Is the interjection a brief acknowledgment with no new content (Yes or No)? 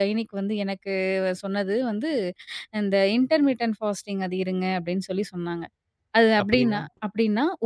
Yes